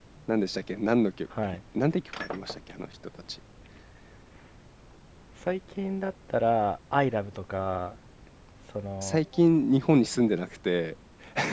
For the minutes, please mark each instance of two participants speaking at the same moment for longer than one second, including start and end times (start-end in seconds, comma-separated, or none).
none